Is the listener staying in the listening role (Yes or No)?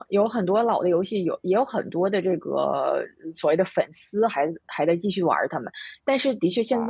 Yes